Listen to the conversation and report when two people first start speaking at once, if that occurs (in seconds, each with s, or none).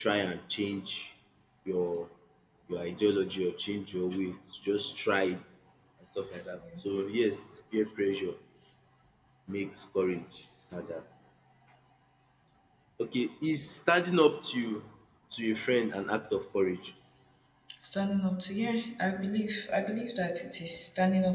none